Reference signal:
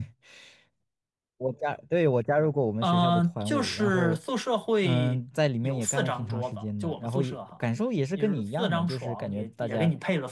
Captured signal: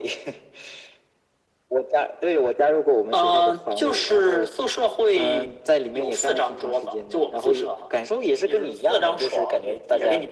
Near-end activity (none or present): none